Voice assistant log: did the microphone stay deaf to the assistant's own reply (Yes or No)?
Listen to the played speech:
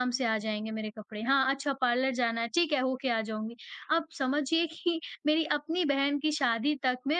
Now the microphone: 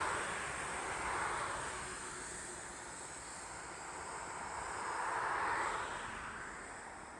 Yes